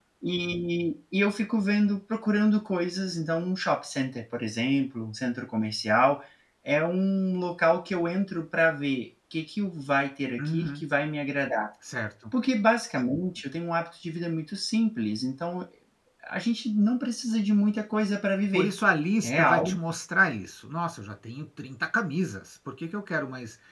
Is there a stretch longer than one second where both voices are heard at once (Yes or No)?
No